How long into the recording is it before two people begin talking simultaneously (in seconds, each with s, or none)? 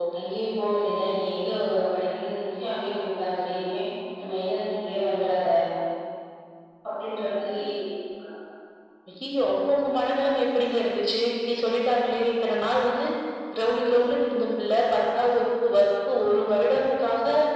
none